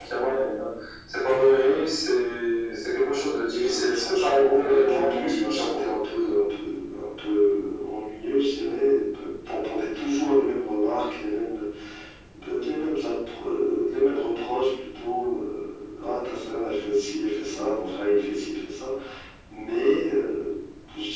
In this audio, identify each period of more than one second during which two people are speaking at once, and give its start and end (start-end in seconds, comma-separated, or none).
3.5-5.8